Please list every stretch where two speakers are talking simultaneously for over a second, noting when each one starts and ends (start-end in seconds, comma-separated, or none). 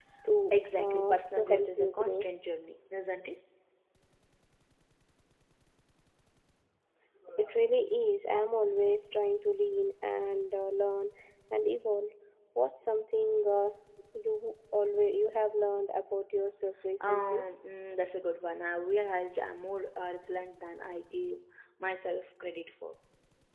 0.5-2.2